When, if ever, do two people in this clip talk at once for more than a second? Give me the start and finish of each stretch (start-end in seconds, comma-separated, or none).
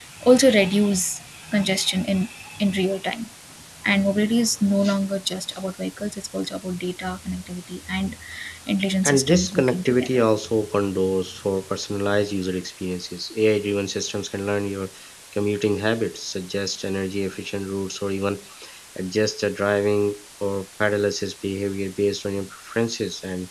9.0-10.3